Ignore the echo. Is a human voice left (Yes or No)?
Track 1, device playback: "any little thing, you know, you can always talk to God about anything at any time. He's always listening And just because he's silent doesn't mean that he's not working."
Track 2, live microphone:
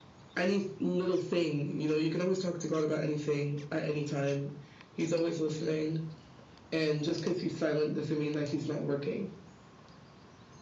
No